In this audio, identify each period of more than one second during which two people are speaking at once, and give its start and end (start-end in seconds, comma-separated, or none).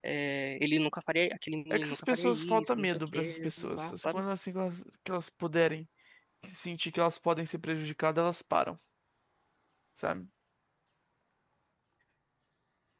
1.7-4.2